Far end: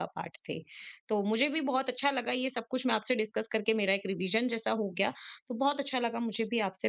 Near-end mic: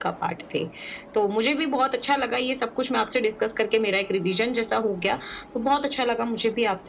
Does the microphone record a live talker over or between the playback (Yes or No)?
No